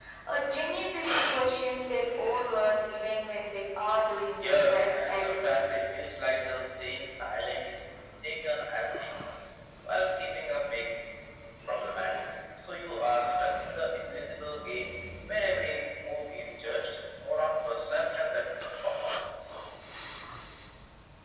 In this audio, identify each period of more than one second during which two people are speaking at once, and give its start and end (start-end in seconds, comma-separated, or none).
4.4-5.8